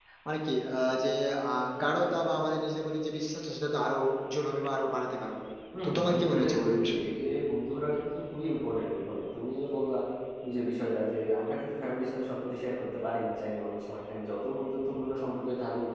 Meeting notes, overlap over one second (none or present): present